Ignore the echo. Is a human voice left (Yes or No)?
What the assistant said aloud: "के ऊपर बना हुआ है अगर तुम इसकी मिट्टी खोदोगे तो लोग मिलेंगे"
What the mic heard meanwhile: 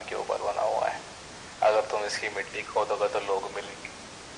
No